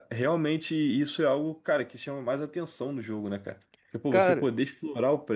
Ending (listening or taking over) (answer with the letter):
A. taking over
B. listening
B